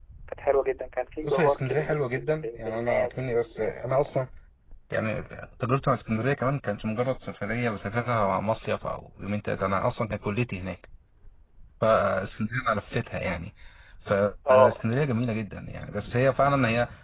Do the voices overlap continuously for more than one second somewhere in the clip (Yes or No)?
Yes